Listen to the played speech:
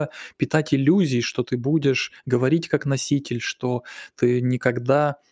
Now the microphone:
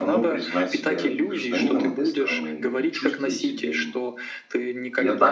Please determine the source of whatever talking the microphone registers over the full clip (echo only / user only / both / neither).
both